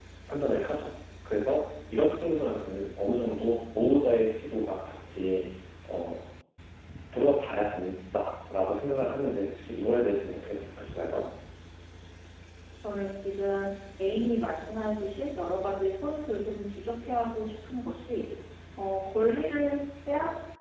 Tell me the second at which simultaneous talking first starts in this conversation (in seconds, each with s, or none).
none